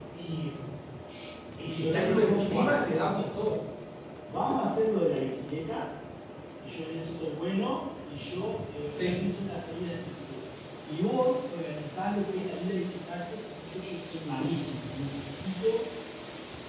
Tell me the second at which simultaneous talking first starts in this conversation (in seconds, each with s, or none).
1.7 s